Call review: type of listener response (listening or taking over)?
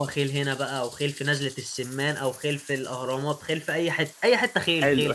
taking over